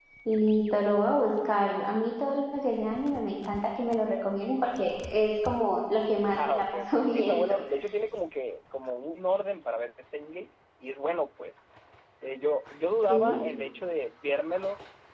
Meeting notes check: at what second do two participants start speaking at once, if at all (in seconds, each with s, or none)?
6.3 s